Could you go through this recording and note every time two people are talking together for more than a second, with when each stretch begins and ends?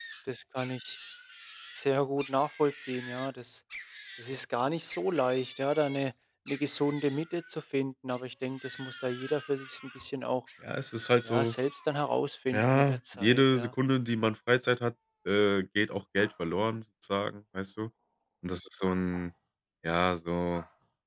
12.5-13.7

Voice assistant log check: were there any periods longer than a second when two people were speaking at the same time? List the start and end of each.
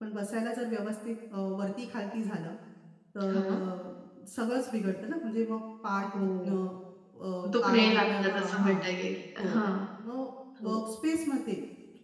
7.6-8.8

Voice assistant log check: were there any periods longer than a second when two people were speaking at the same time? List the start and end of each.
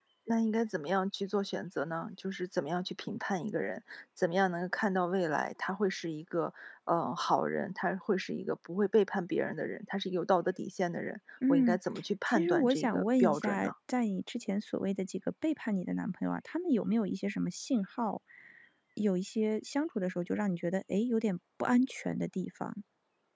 12.3-13.7

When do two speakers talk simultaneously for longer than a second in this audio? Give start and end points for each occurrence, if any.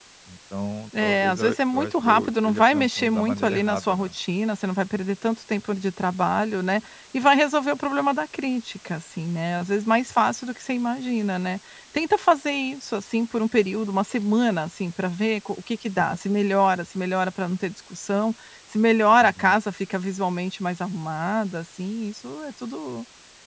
1.0-4.1

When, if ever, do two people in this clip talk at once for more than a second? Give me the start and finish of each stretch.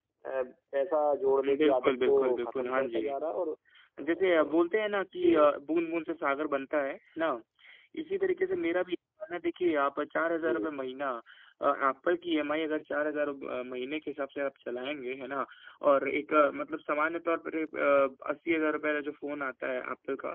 1.5-3.0

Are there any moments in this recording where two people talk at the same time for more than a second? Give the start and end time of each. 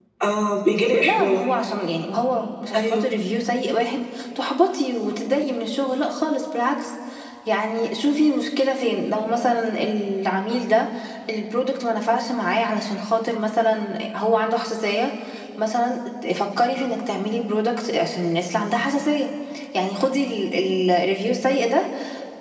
none

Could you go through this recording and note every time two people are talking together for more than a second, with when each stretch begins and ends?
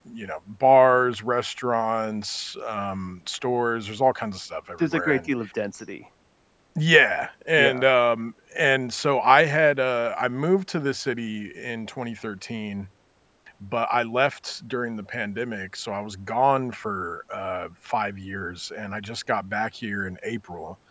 none

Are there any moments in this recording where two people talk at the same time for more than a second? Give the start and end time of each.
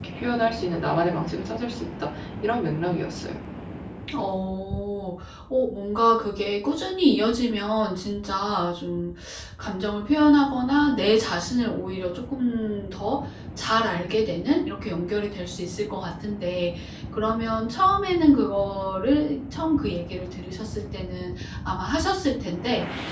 none

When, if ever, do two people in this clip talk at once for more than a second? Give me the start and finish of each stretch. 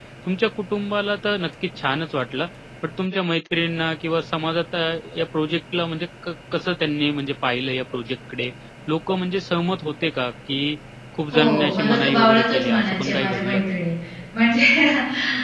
11.3-13.7

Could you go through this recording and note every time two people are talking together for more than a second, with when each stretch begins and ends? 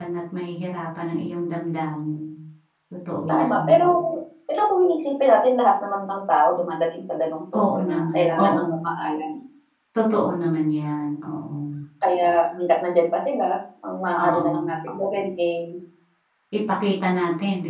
7.6-8.9

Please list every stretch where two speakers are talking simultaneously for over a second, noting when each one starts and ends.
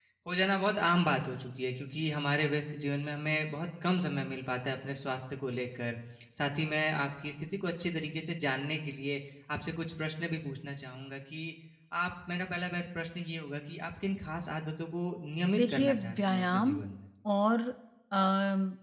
15.6-16.8

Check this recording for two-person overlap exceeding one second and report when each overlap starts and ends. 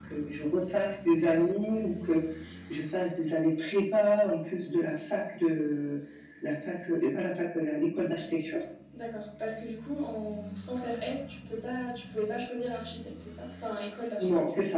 none

